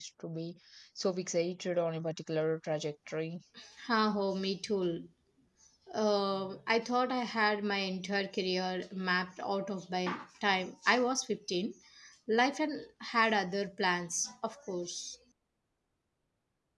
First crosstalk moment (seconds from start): none

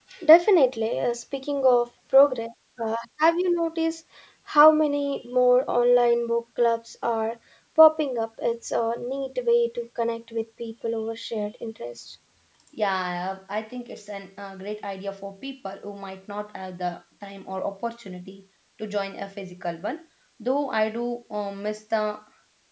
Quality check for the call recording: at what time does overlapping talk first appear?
none

